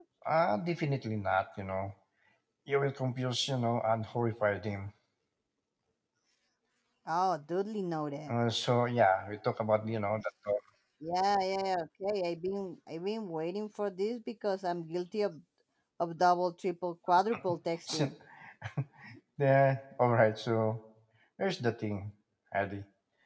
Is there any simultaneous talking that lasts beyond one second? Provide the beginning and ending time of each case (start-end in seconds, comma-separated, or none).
none